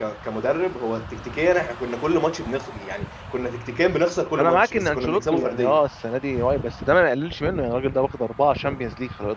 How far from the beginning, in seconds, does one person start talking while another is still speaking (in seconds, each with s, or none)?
4.4 s